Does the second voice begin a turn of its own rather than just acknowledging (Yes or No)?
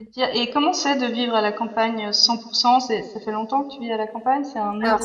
Yes